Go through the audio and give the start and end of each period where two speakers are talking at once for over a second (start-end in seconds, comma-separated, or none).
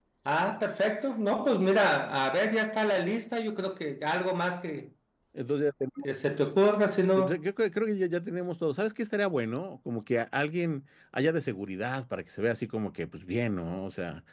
none